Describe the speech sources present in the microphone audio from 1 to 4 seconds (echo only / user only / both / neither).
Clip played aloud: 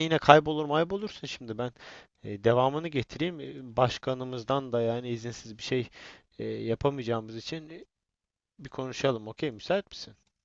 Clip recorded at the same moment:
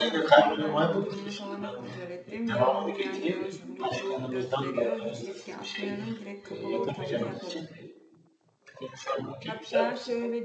both